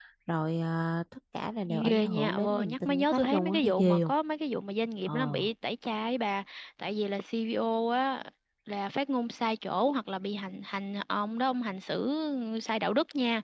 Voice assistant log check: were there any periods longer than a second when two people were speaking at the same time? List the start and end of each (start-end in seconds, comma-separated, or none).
1.9-4.1